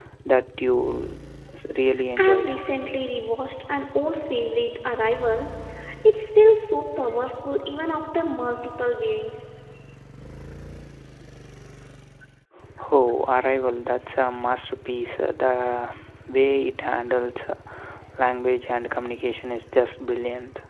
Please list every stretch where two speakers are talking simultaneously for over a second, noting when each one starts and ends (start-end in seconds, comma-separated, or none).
none